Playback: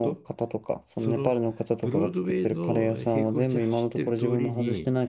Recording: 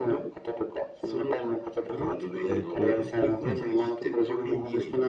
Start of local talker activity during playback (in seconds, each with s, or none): 2.5 s